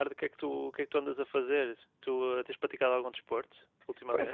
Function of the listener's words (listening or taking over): taking over